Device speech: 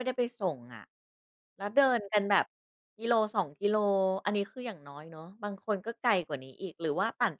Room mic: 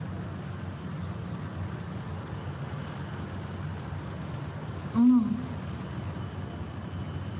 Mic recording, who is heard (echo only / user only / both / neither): user only